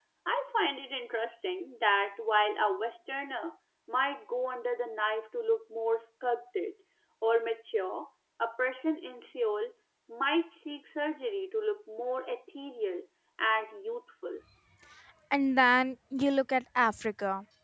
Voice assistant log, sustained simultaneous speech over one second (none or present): none